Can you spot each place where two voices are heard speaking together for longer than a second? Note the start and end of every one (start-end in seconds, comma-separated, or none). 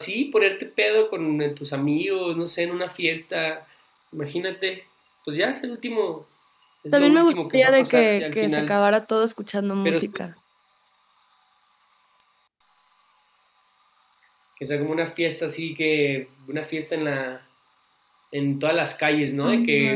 6.9-8.8